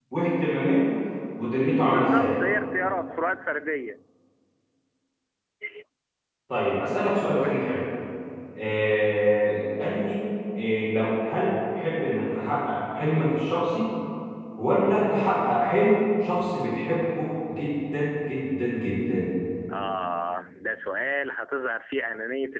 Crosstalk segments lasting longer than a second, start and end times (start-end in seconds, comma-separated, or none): none